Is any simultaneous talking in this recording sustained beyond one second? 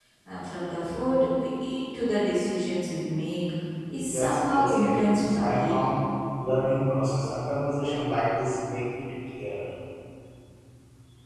Yes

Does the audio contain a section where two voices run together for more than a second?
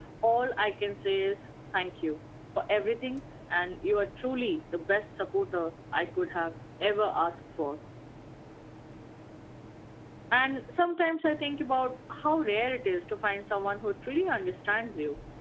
No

